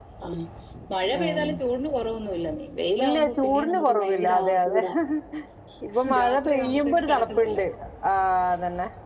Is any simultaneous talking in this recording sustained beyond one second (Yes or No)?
Yes